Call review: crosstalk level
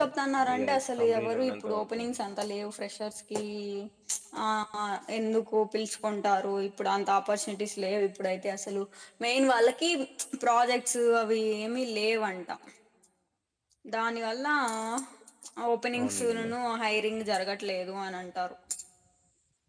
present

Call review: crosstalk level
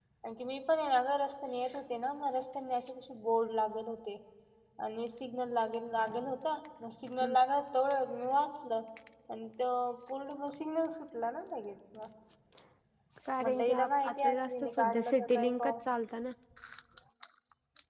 present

